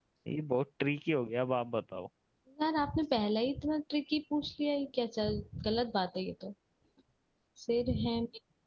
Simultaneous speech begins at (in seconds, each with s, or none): none